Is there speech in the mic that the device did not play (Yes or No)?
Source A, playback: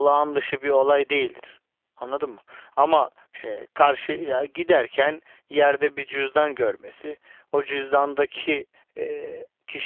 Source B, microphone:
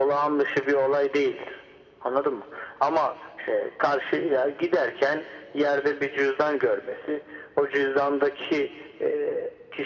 No